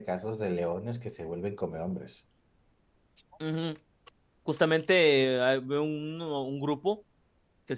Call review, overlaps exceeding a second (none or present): none